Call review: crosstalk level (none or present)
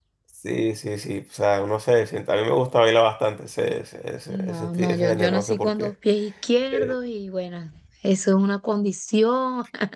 present